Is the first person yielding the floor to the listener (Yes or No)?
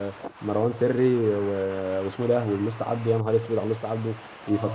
Yes